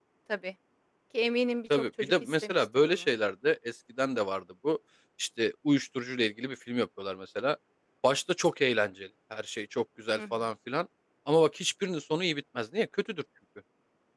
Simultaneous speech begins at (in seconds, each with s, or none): 1.7 s